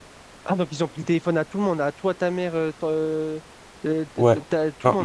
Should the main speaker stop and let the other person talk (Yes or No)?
Yes